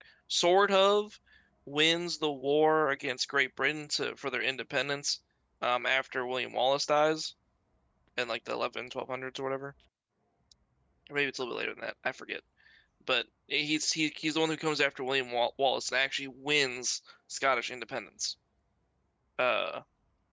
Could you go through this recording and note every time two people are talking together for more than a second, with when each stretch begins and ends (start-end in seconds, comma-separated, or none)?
none